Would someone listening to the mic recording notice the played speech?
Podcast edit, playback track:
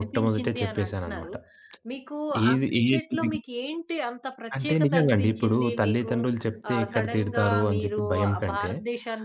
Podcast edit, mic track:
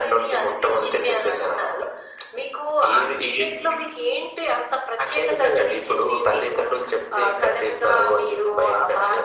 Yes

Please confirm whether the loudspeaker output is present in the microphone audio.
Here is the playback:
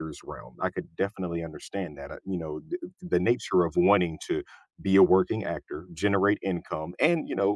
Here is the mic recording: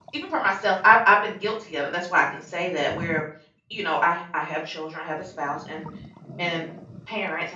No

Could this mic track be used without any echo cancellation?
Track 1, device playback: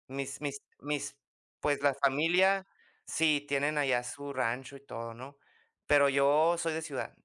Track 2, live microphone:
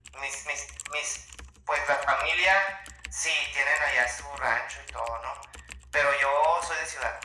No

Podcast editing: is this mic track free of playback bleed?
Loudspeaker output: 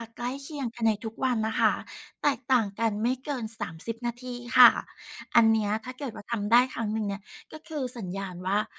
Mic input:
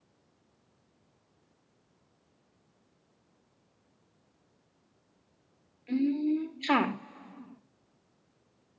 Yes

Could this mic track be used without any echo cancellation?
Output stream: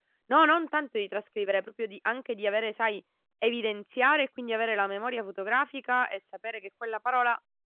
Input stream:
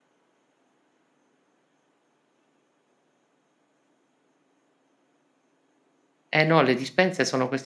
Yes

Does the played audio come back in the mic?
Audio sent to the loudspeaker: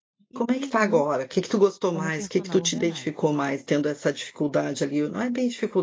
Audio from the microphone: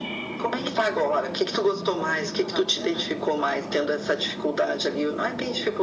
Yes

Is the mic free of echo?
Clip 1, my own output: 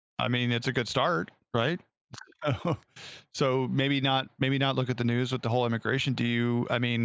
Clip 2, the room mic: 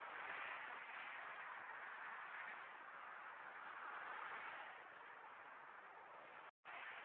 Yes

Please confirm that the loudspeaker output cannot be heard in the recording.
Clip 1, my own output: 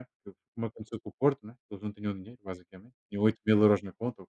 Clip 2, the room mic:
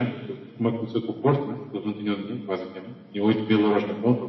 No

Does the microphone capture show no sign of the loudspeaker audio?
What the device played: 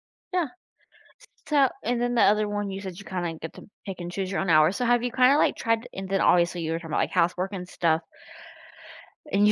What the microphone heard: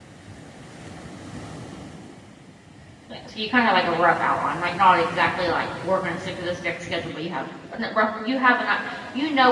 Yes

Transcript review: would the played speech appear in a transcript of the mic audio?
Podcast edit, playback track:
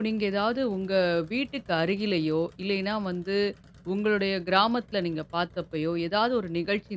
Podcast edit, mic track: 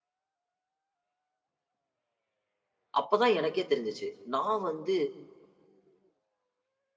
No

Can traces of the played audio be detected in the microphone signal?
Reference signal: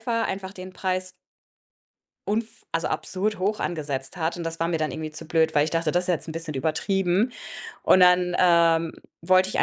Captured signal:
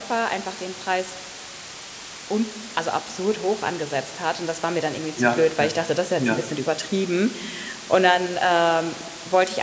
Yes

